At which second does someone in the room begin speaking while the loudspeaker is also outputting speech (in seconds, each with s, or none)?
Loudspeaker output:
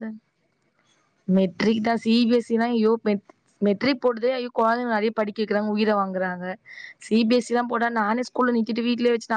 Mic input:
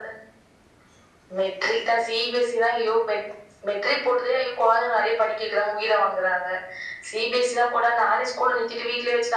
none